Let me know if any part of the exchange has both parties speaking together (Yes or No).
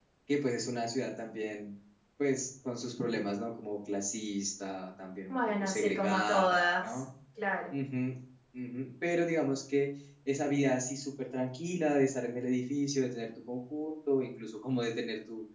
Yes